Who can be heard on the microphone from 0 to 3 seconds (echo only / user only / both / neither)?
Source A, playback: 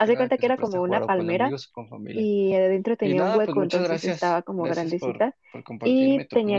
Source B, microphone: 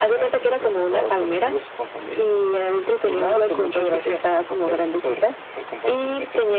echo only